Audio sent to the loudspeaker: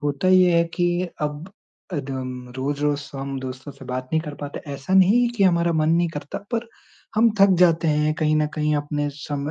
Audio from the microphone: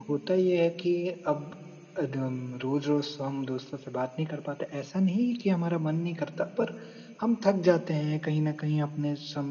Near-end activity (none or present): none